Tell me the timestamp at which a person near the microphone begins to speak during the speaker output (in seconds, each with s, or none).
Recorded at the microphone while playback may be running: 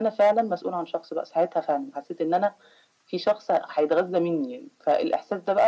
none